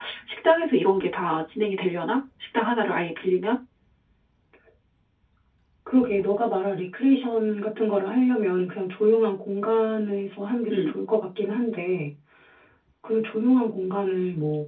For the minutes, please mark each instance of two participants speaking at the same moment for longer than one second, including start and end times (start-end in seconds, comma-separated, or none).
none